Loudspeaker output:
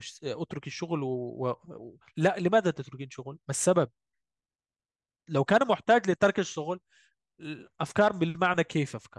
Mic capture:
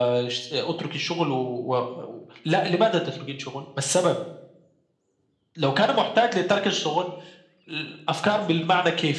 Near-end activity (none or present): none